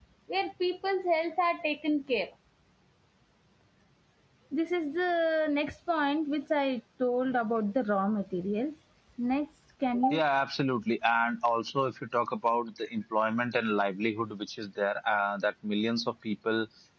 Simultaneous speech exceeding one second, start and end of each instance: none

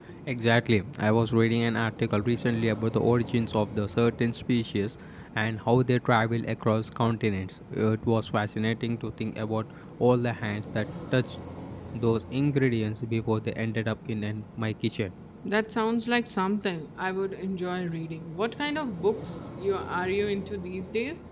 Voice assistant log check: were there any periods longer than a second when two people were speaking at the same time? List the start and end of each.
none

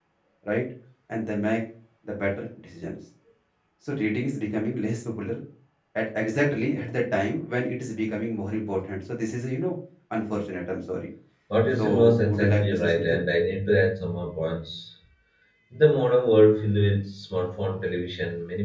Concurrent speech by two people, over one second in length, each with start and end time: 11.8-13.2

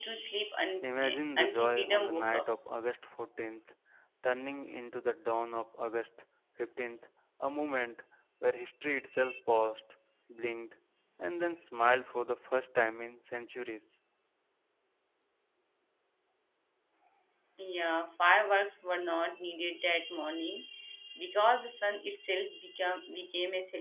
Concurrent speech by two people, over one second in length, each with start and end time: 0.8-2.5

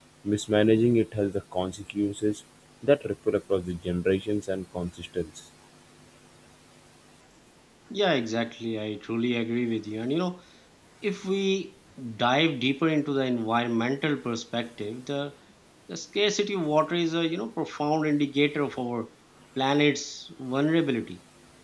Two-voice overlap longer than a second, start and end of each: none

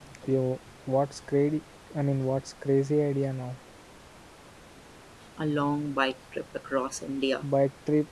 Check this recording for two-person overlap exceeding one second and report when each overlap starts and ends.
none

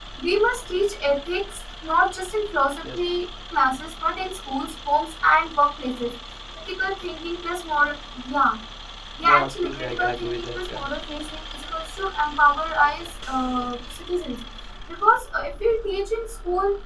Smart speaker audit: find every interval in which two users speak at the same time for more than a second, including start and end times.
9.2-10.8

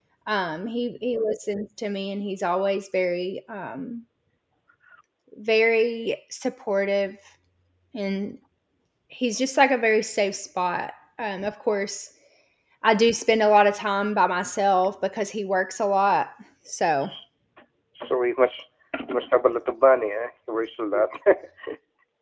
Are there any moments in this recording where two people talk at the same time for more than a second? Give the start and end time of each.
none

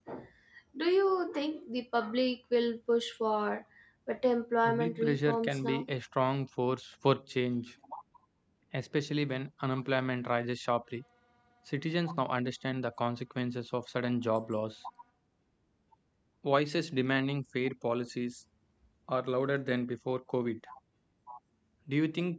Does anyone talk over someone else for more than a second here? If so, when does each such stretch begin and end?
4.7-5.8

